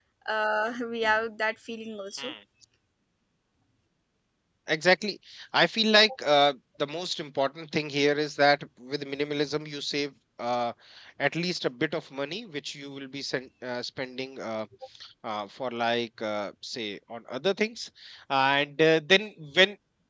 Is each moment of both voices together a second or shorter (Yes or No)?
Yes